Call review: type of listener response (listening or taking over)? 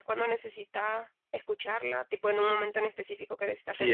taking over